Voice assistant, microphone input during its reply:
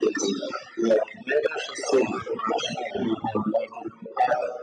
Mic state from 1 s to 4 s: echo only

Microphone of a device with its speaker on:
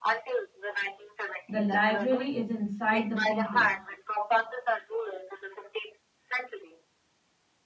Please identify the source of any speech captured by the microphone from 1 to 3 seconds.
both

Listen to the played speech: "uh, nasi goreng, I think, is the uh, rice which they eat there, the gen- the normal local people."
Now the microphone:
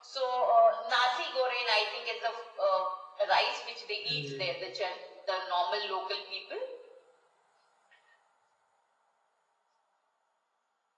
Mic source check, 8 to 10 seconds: neither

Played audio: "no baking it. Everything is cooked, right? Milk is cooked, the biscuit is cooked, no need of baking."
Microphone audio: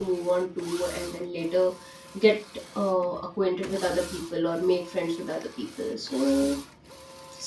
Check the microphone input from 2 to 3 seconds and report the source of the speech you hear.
user only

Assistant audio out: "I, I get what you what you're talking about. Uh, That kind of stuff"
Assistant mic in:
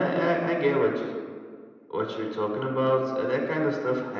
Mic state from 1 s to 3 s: echo only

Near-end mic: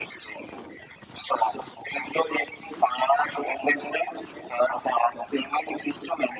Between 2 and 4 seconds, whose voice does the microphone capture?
echo only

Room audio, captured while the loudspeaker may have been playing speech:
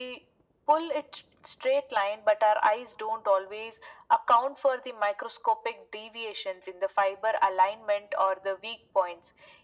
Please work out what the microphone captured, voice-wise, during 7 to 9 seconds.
echo only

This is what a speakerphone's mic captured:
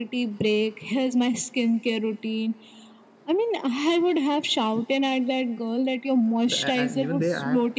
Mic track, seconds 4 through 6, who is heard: echo only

